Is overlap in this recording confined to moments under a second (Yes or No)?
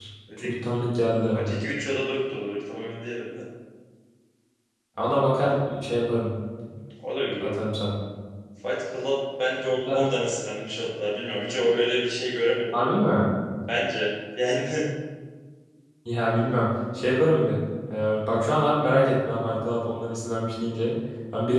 Yes